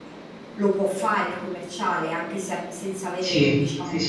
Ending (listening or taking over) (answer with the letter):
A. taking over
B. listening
A